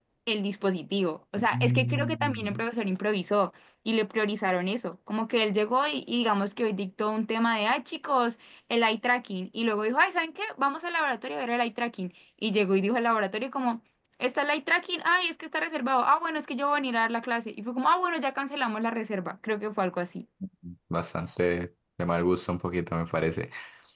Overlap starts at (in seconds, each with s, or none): 1.4 s